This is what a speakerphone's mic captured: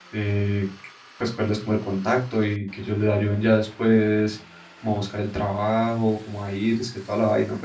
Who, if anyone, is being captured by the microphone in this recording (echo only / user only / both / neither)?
user only